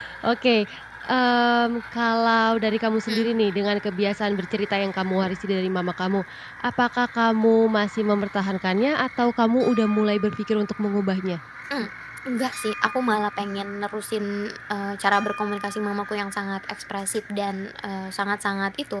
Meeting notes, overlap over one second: none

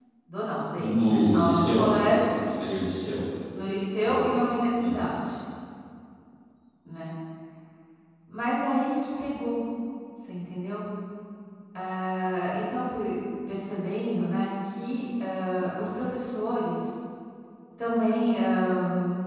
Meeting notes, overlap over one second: present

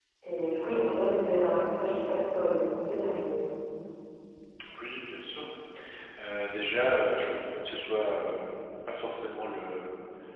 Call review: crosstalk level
none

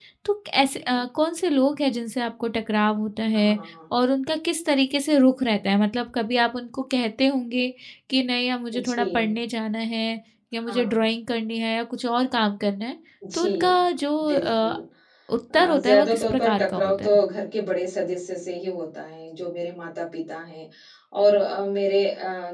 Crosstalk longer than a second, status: present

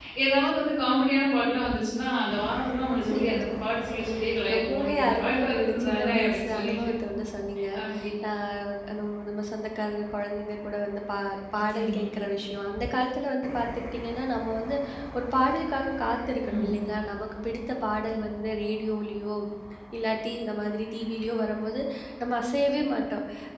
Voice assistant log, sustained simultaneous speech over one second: present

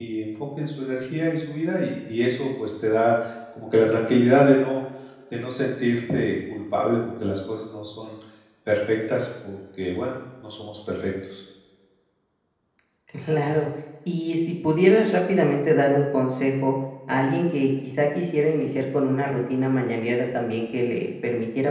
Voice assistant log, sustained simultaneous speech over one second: none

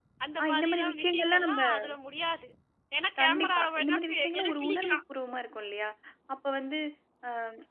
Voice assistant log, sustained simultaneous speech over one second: present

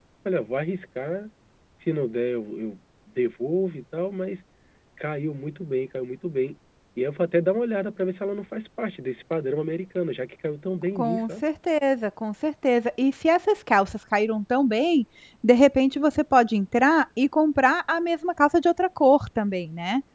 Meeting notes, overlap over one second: none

